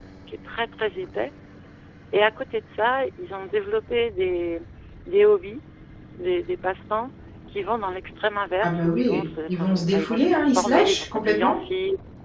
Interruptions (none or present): present